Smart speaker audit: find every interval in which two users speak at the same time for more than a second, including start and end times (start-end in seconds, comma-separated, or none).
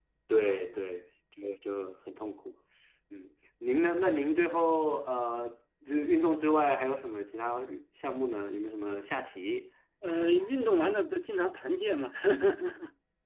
none